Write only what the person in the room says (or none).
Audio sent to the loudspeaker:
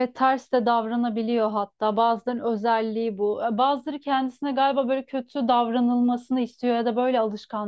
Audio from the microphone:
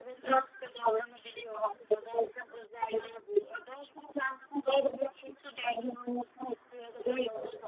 none